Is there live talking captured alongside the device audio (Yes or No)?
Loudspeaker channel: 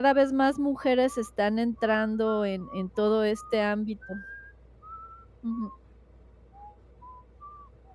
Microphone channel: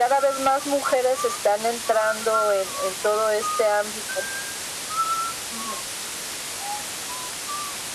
No